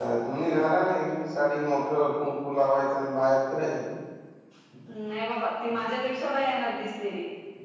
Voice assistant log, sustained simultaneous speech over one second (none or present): none